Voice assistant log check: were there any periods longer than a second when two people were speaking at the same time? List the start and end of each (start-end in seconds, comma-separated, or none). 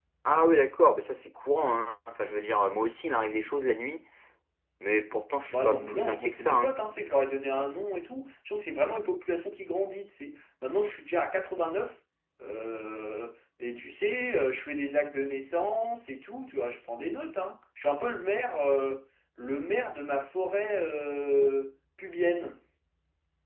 5.5-6.8